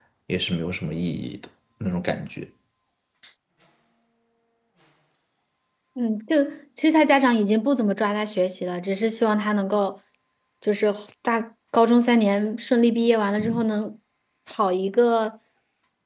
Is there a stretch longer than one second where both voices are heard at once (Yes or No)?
No